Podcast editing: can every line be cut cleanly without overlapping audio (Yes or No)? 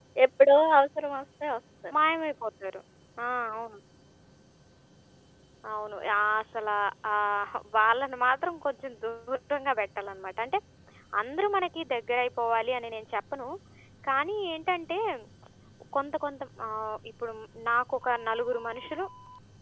Yes